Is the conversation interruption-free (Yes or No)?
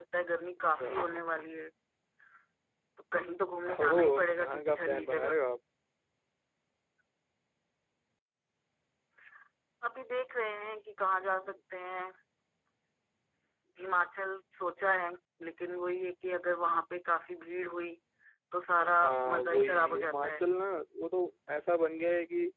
No